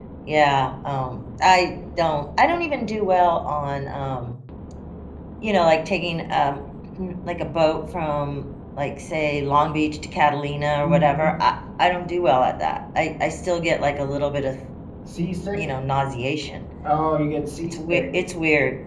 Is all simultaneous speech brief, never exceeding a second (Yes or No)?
Yes